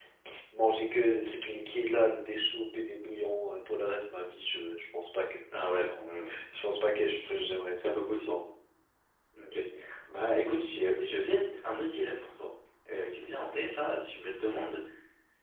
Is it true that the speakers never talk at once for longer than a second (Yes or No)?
Yes